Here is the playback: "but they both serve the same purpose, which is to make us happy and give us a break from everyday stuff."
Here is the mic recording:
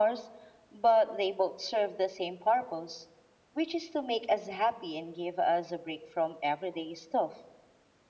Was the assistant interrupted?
No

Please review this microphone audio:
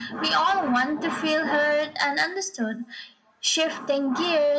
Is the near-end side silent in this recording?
Yes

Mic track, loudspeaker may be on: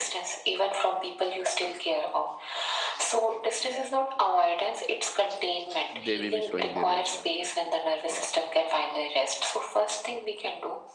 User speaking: Yes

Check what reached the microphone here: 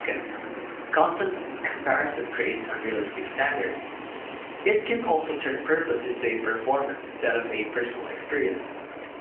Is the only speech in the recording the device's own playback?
No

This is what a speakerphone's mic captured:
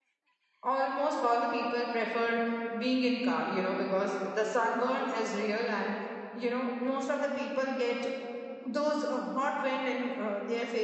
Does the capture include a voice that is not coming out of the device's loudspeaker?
Yes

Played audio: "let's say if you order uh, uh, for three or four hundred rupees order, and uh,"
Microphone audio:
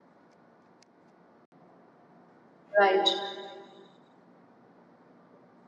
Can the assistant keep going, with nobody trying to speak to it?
No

